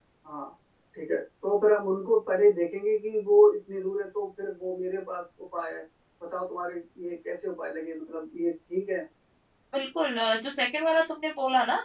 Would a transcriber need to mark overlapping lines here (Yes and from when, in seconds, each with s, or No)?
No